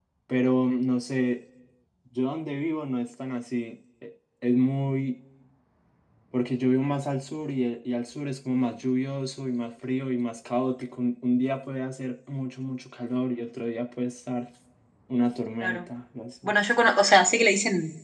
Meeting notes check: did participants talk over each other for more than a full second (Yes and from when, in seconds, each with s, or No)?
No